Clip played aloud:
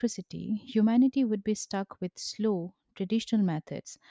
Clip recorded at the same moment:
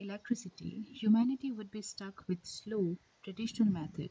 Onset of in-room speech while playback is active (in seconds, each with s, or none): none